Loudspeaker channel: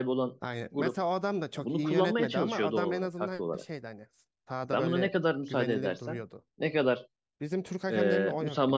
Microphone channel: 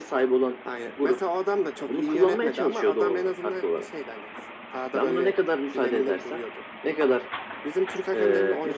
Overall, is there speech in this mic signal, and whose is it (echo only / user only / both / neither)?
echo only